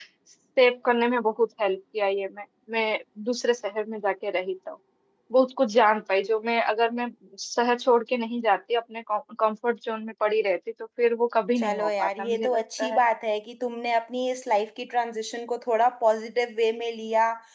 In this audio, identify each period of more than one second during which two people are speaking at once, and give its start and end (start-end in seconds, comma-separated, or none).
11.6-13.0